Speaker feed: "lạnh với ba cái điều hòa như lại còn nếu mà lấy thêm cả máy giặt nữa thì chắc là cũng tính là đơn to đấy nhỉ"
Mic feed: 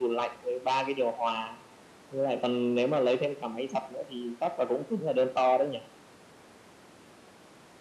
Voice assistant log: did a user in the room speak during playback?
No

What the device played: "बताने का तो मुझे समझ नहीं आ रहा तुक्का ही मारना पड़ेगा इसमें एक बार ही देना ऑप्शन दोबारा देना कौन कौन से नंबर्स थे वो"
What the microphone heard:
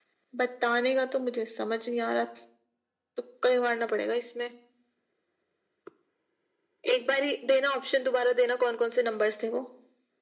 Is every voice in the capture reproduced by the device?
Yes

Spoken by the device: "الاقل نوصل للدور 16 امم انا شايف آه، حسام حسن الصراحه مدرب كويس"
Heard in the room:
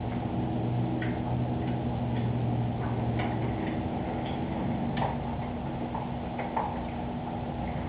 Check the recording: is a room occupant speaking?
No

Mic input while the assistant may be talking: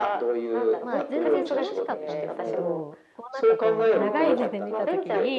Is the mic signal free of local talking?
No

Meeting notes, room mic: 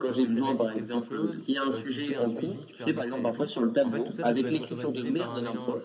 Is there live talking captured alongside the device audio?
Yes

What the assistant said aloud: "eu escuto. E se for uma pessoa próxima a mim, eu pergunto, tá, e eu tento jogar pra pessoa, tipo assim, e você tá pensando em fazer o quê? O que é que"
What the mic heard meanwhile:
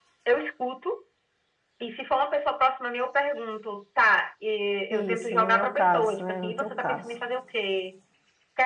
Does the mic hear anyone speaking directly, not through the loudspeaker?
Yes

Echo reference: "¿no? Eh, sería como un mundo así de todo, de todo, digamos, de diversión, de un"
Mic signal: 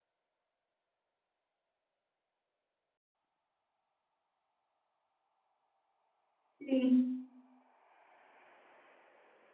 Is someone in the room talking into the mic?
Yes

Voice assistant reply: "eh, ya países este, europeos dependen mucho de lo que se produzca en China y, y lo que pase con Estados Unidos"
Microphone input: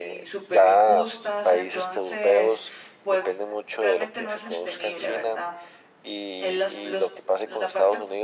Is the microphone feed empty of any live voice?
No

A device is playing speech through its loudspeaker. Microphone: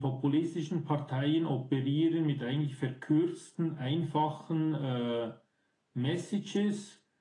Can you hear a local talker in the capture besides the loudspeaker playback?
No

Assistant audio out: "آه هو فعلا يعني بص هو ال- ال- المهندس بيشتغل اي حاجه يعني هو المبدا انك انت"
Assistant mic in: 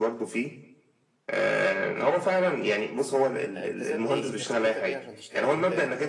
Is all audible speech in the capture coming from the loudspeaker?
No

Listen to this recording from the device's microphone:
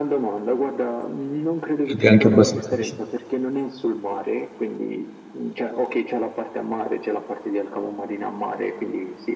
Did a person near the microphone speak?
Yes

